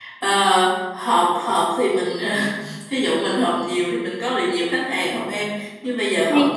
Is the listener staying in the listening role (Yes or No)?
Yes